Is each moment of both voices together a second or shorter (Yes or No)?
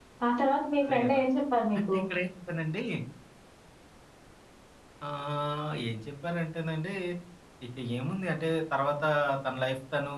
Yes